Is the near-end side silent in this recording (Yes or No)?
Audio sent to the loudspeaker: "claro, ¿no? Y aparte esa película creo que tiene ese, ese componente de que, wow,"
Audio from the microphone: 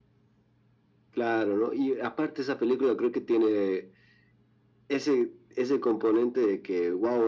Yes